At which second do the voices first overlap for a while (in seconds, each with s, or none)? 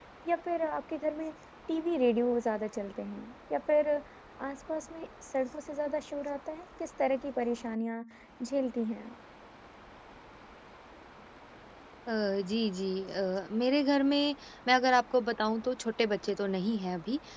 none